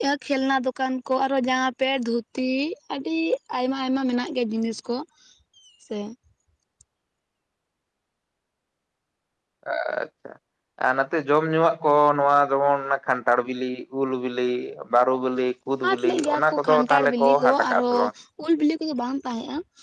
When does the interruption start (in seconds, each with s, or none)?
15.8 s